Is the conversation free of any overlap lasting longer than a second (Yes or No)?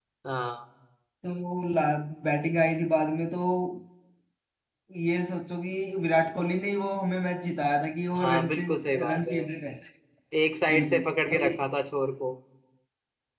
No